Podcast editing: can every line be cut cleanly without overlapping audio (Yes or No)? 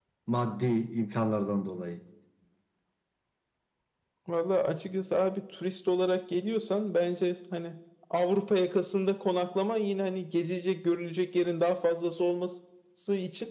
Yes